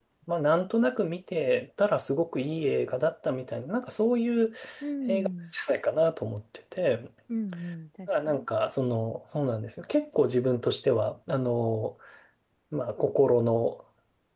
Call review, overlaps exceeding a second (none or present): none